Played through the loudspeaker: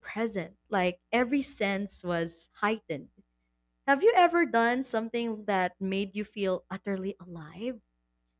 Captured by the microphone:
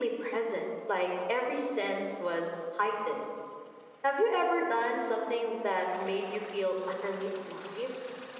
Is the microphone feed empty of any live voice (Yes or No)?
Yes